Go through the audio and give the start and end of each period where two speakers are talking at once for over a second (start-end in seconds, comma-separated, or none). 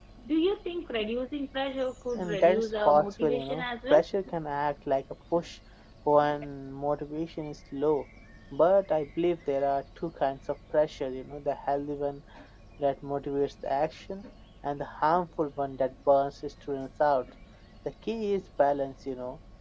2.1-4.0